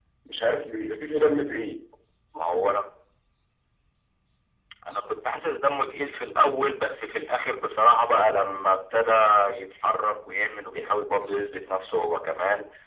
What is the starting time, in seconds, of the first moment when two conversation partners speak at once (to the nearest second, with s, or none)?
none